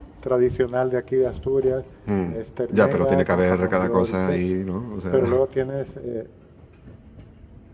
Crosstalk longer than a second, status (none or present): present